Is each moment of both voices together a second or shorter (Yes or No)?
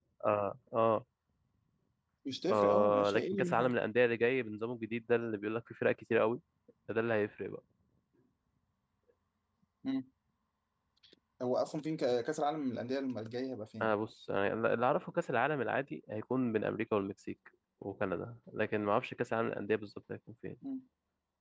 No